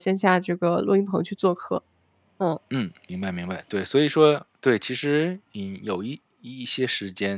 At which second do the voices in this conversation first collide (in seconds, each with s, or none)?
none